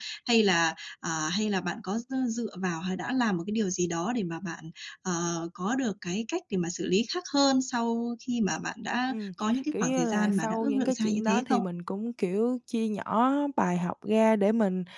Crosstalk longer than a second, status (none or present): present